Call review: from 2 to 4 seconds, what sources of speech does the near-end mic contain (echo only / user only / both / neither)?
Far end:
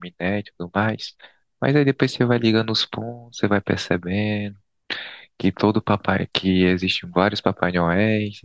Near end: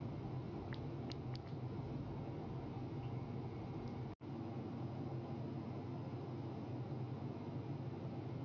neither